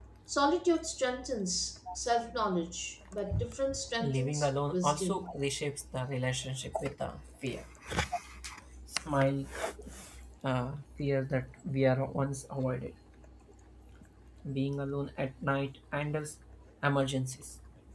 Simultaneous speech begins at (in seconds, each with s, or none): 4.0 s